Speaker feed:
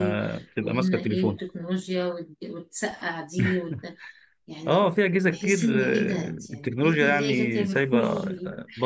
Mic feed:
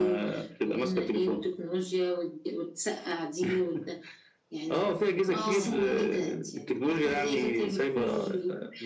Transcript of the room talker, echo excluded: اه اه

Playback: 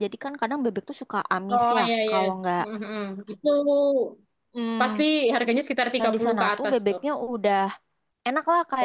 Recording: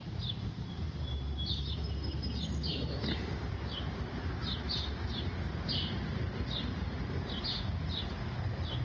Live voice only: none

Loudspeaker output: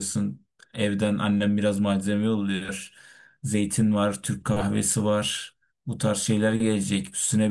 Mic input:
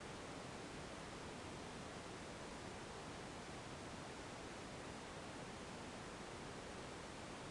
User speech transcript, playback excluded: none

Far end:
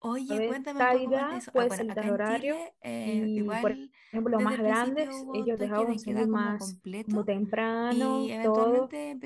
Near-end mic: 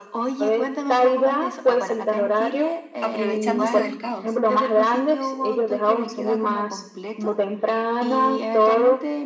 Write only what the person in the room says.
Aprovechándose del caos.

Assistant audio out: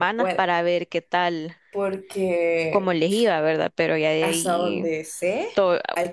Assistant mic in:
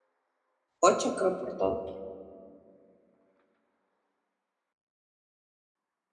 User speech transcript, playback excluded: ocho creo por todo.

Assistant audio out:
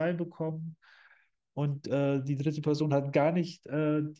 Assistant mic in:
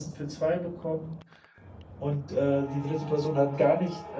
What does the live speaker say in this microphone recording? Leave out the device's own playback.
none

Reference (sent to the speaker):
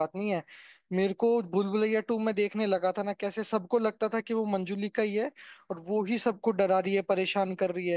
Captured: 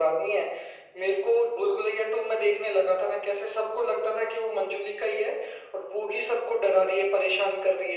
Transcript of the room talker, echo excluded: none

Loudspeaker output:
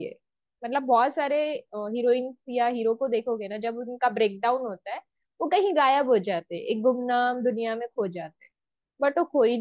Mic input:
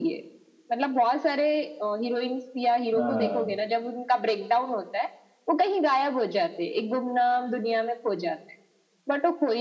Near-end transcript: हाँ

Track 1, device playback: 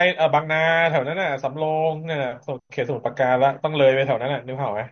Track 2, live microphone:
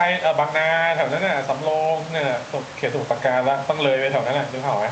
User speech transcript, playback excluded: none

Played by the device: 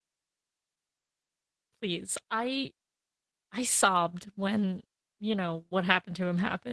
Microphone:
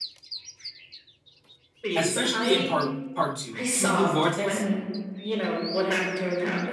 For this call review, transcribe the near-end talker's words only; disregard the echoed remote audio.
especially in part part two, two blue vortex.

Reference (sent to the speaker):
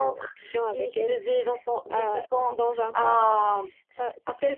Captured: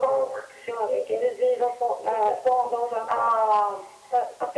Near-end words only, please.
none

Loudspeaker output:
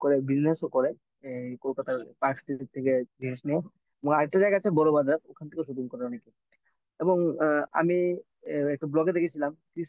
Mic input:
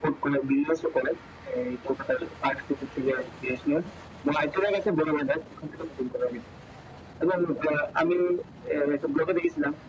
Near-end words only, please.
none

